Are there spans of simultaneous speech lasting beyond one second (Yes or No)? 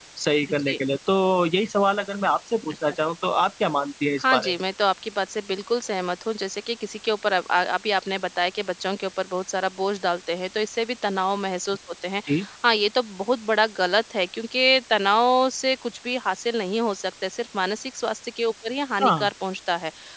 No